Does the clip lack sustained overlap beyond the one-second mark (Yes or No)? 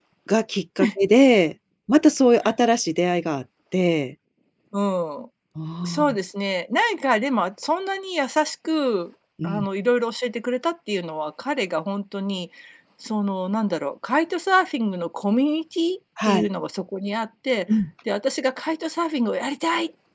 Yes